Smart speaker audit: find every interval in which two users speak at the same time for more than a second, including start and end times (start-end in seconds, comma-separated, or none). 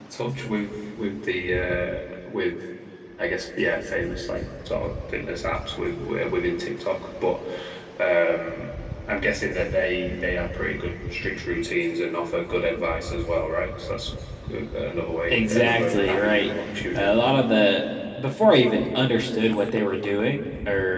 15.3-16.5